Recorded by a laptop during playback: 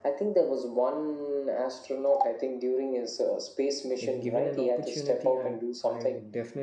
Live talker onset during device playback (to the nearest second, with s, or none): 4 s